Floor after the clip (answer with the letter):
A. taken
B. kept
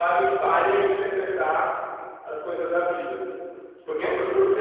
B